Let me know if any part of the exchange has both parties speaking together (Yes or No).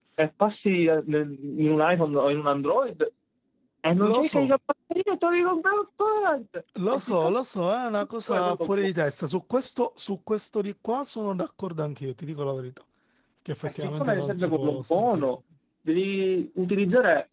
Yes